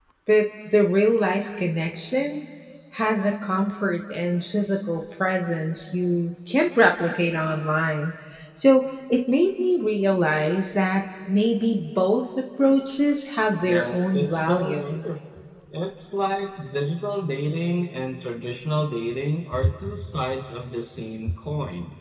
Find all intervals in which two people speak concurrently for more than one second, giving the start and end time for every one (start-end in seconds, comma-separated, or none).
13.6-15.0